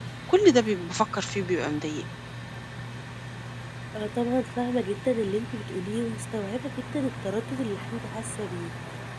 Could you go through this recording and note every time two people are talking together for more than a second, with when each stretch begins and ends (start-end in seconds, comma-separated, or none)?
none